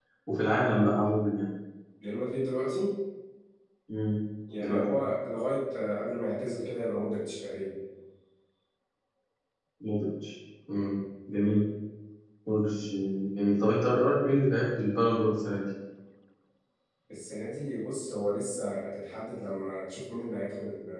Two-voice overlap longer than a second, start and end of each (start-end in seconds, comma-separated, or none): none